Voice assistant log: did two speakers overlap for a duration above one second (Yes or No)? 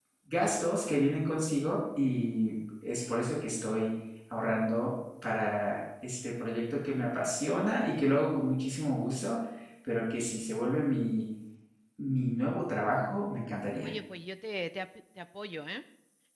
No